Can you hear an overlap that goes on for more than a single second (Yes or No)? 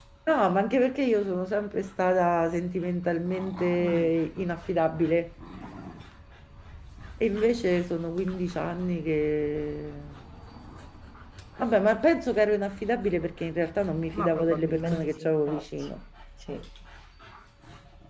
Yes